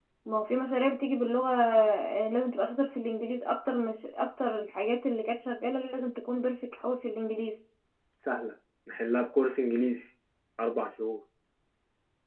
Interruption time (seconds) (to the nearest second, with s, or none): none